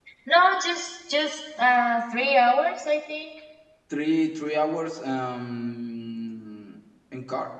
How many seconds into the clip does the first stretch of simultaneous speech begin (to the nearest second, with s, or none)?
none